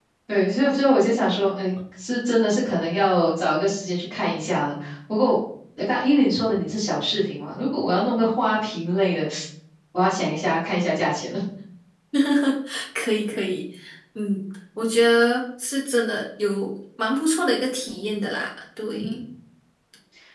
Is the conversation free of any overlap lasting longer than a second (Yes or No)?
Yes